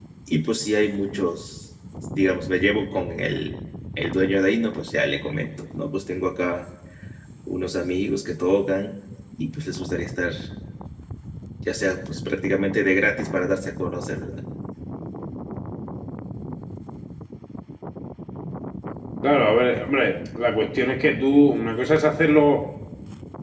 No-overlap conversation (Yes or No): Yes